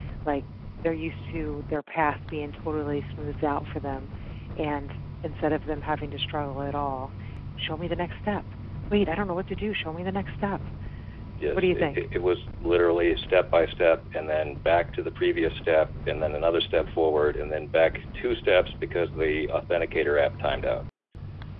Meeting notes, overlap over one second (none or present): none